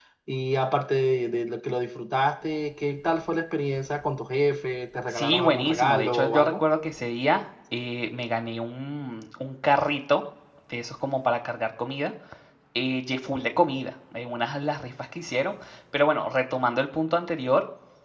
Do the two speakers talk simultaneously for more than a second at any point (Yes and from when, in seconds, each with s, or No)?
Yes, from 5.1 s